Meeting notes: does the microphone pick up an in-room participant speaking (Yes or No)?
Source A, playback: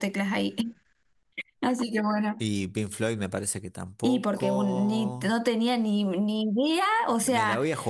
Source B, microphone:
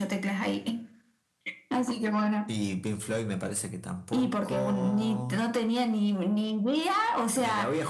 No